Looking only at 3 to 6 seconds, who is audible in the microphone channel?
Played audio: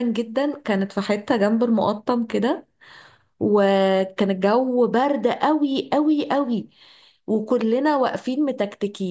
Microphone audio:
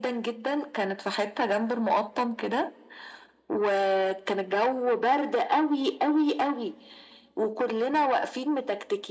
echo only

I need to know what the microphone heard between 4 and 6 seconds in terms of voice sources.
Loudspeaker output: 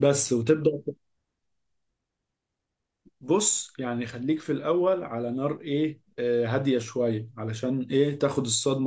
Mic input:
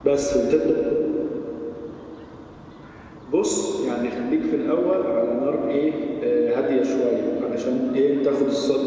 echo only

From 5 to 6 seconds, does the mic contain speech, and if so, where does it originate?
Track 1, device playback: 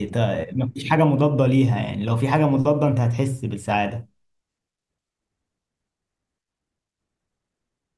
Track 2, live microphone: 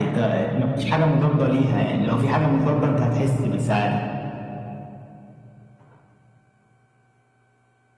neither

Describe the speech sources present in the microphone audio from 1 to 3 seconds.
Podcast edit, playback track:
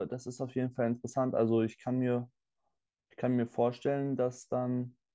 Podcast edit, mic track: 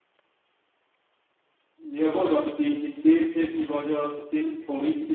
user only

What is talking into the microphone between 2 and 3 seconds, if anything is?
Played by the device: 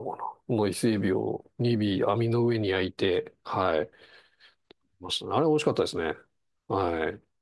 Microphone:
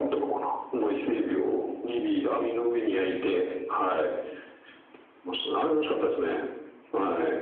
echo only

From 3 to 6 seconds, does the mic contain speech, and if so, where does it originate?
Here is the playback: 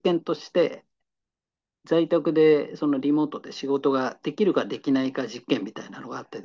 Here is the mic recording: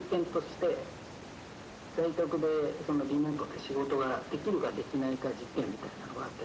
echo only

